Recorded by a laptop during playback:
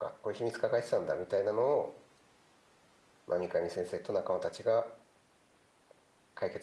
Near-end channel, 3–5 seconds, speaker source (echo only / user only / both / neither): user only